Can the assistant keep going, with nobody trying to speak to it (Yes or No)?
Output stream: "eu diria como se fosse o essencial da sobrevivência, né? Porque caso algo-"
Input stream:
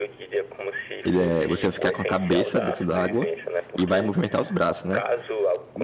No